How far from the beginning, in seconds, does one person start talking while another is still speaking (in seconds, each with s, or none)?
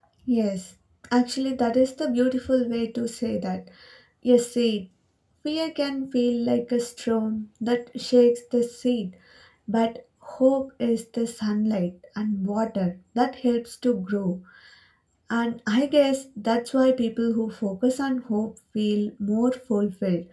none